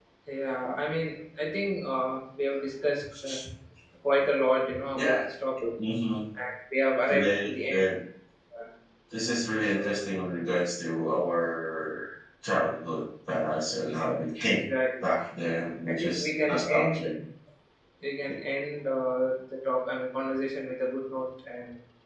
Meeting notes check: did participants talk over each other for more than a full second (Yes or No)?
Yes